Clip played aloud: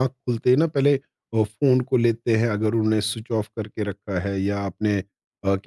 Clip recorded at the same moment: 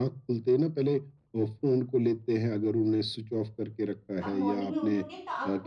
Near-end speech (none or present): present